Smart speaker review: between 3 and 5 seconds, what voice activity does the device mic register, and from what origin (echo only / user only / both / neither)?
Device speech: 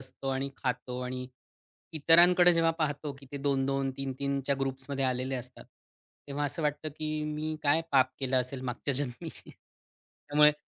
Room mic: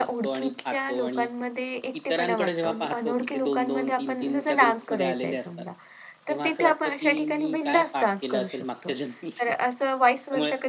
both